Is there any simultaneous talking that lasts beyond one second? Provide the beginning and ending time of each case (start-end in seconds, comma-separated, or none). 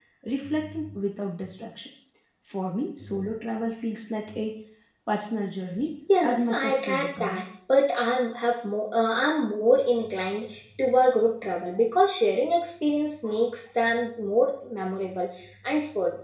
6.2-7.4